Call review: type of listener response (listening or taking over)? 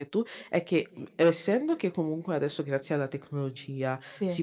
listening